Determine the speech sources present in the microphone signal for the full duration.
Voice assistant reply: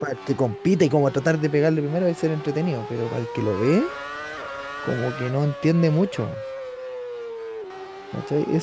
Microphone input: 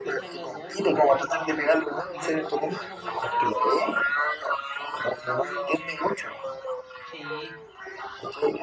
both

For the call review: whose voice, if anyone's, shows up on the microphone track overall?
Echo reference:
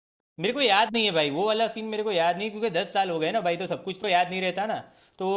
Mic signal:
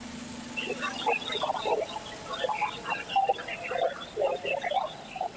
echo only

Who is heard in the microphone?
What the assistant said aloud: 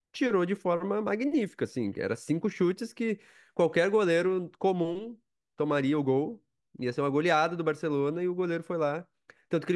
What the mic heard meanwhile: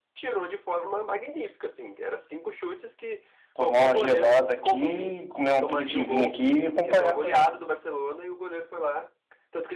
both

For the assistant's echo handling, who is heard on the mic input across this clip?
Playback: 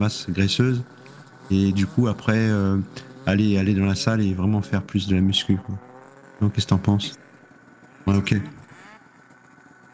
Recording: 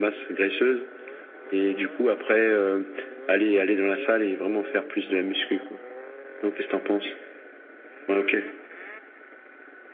echo only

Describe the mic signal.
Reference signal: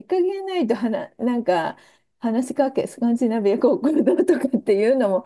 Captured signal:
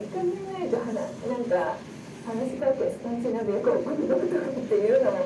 echo only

